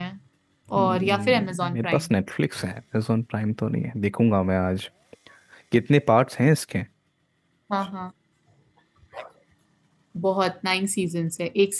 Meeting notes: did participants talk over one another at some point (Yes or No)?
Yes